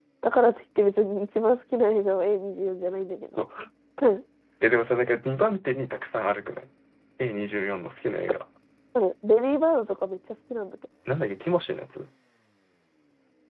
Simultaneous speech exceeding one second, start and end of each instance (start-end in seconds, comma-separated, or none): none